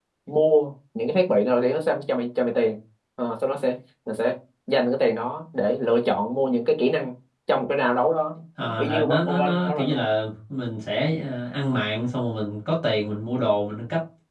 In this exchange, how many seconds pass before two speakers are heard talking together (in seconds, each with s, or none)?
8.6 s